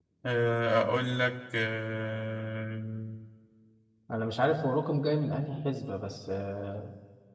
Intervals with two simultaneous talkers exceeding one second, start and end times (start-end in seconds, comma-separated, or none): none